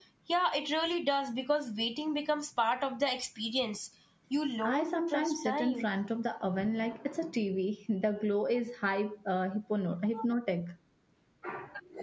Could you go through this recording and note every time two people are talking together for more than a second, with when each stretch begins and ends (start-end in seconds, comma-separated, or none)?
4.6-5.8